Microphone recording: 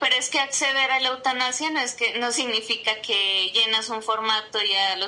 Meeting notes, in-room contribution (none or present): none